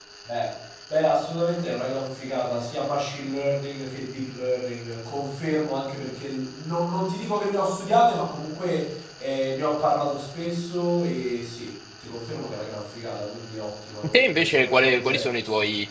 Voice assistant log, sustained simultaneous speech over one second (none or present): present